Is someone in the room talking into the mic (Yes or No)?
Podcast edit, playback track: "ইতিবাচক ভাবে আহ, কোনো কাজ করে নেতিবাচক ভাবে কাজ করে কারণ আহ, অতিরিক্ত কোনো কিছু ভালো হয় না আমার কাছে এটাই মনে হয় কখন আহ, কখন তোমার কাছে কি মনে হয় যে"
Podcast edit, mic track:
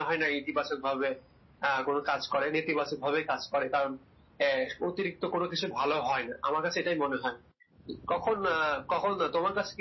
No